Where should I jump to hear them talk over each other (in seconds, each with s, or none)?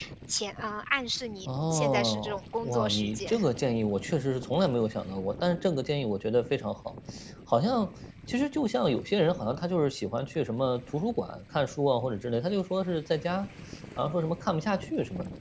1.4 s